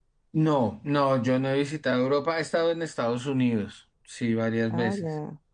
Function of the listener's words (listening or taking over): taking over